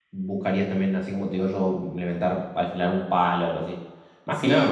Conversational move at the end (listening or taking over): taking over